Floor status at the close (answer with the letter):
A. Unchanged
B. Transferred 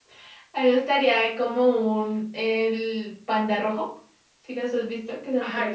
B